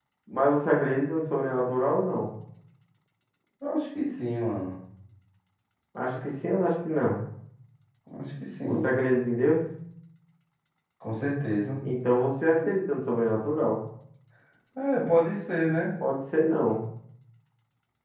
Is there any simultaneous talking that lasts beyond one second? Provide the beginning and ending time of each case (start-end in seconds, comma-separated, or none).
none